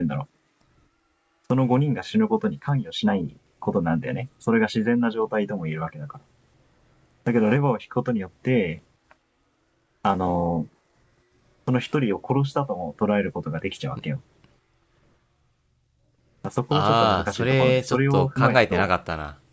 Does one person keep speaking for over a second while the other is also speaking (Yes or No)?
Yes